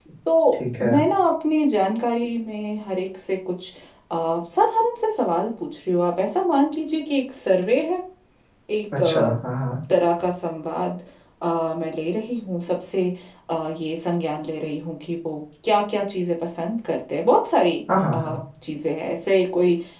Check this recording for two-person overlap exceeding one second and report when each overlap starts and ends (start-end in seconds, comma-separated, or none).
none